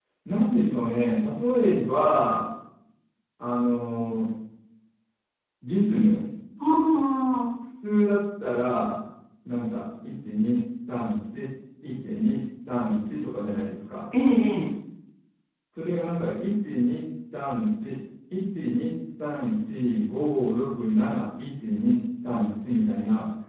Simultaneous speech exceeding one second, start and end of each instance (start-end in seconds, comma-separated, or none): none